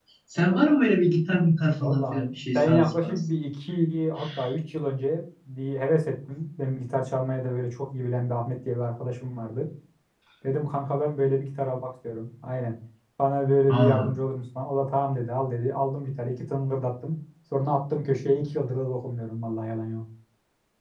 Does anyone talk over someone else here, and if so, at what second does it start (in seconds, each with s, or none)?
1.8 s